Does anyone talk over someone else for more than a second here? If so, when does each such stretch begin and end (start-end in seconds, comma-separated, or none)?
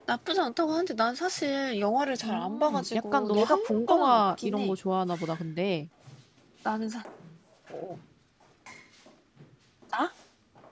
2.2-4.8